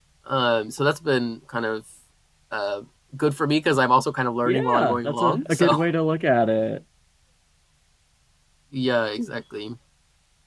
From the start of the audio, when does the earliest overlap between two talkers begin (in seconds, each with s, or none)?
4.5 s